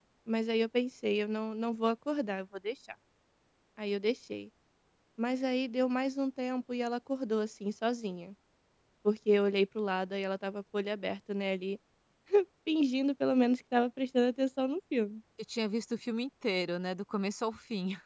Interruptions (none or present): none